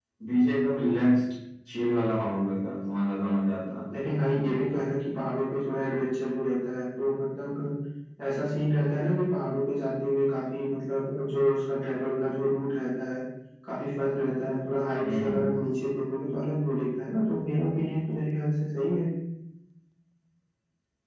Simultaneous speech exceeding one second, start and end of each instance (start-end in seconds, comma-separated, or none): none